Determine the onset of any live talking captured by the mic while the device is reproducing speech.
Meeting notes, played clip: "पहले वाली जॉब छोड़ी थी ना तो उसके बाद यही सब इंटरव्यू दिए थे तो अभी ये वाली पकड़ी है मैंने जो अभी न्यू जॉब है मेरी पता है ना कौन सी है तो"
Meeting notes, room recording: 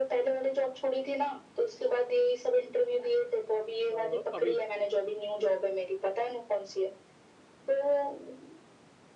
3.9 s

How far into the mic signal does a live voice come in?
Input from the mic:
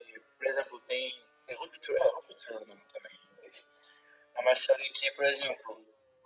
none

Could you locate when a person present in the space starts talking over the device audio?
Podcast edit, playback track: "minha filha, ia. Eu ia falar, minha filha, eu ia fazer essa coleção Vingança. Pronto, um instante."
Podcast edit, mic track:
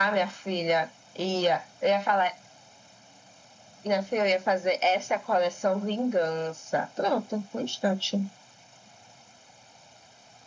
none

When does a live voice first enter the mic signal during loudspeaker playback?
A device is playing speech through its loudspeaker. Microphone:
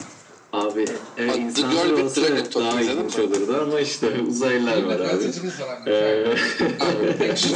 4.7 s

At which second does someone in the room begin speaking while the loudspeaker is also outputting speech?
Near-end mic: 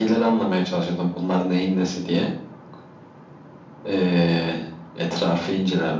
none

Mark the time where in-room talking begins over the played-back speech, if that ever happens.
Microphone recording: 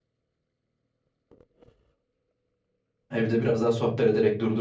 3.1 s

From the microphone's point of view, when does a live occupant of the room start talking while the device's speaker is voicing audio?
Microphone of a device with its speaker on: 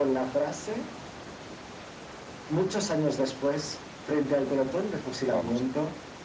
5.3 s

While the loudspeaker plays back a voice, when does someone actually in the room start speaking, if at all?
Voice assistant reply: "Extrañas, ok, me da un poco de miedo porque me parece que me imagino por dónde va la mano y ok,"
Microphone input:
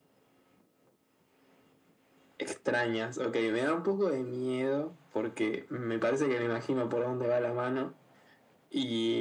none

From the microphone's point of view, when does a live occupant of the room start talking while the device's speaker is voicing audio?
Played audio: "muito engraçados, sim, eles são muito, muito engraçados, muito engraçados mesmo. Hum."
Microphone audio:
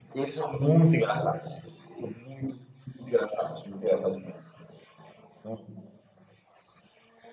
none

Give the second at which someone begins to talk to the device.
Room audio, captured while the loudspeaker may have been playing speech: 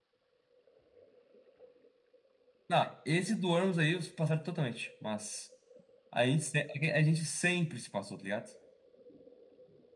none

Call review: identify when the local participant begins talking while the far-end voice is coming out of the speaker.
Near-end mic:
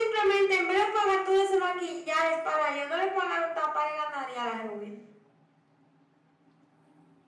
none

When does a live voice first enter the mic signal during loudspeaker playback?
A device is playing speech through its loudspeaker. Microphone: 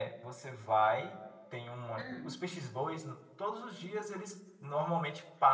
1.9 s

